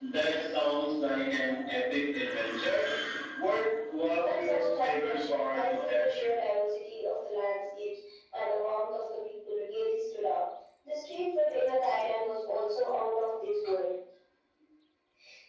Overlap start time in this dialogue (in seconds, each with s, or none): 4.2 s